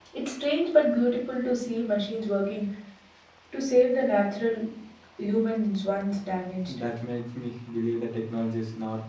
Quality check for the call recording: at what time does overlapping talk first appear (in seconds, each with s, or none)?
none